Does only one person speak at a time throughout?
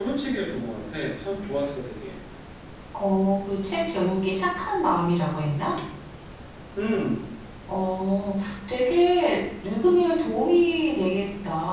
Yes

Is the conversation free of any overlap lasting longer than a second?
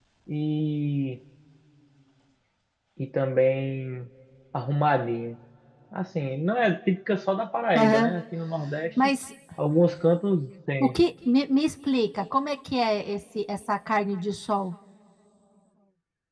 Yes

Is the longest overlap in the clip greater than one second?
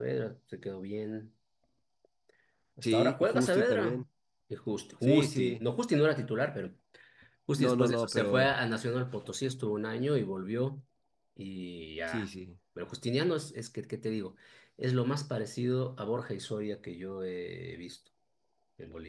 Yes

